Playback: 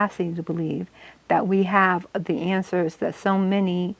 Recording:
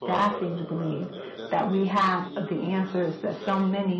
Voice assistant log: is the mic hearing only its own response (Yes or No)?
No